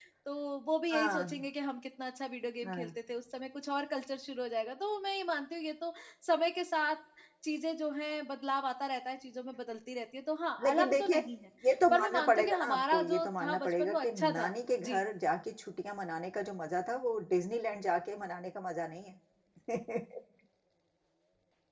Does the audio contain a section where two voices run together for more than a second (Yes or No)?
Yes